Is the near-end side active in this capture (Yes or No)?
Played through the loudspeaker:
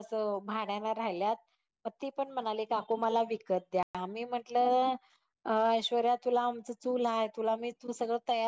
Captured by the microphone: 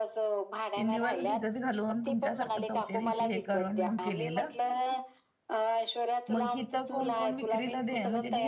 Yes